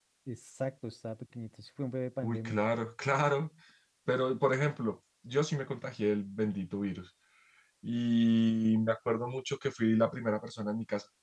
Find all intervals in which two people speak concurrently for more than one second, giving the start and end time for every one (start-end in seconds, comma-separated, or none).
none